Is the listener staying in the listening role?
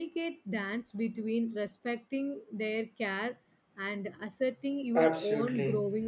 No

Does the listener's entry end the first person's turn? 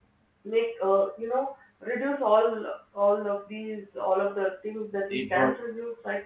No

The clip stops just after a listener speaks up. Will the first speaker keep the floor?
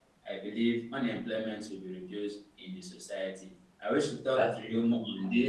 Yes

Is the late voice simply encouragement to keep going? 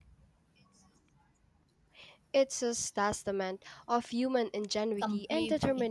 No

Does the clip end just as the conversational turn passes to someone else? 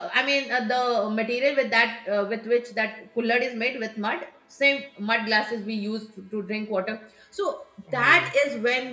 No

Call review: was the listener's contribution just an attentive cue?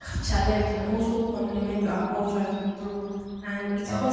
Yes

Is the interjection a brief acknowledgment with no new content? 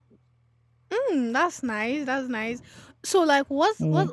Yes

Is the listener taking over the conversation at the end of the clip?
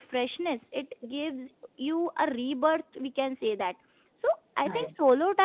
No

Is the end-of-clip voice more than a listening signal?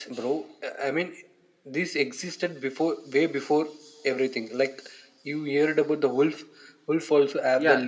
Yes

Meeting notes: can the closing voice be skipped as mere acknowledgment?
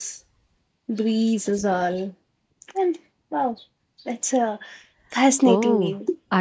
No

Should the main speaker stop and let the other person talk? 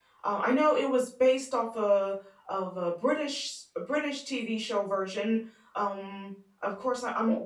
No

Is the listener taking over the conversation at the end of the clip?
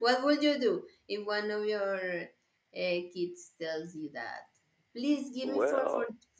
No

